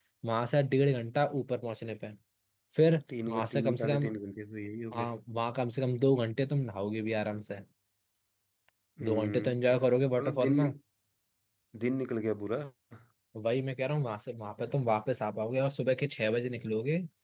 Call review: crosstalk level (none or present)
present